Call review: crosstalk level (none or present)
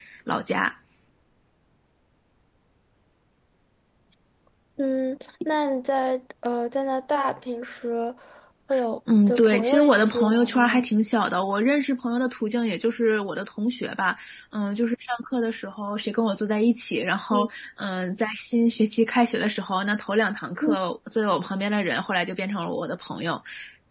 present